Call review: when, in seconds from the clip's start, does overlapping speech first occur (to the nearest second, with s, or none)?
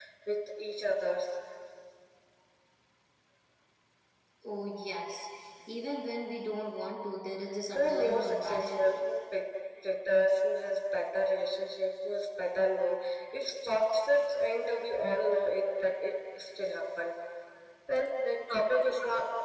8 s